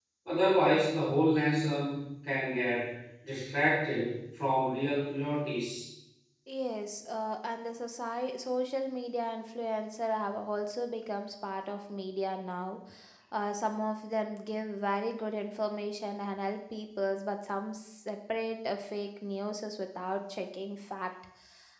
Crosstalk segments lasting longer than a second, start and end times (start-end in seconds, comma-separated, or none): none